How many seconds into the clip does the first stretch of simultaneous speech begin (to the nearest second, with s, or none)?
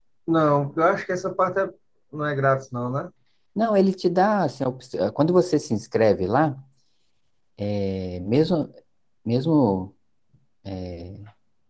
none